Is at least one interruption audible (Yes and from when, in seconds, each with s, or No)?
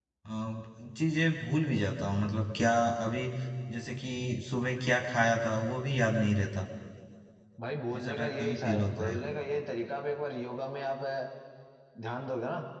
Yes, from 8.0 s